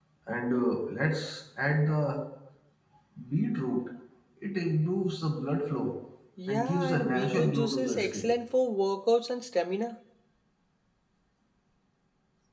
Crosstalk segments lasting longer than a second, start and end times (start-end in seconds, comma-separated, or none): 6.5-8.3